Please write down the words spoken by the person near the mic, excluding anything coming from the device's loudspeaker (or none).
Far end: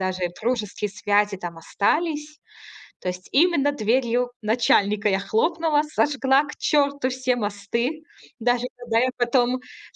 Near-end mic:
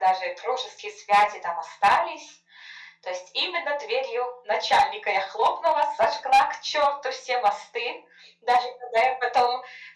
none